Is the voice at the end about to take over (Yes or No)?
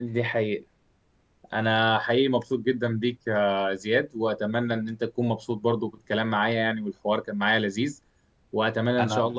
No